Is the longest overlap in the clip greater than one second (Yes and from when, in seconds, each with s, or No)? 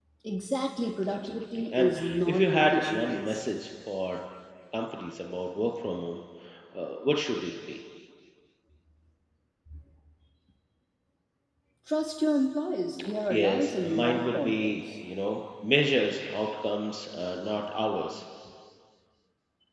Yes, from 1.1 s